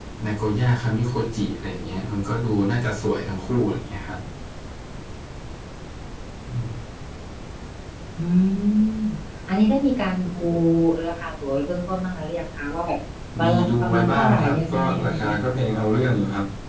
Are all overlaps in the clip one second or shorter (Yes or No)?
No